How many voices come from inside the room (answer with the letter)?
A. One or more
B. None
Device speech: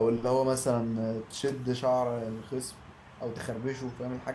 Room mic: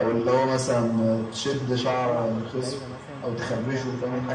A